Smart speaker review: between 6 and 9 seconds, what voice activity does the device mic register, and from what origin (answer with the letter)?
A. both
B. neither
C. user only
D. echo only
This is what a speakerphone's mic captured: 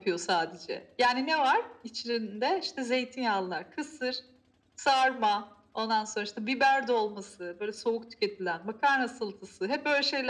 D